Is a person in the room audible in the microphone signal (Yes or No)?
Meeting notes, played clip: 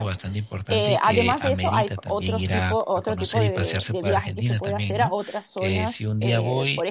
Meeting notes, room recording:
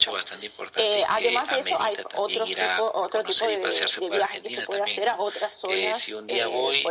No